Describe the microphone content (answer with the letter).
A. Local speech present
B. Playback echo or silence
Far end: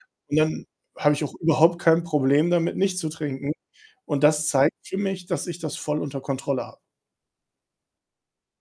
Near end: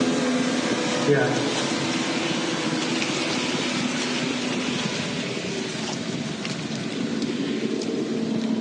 A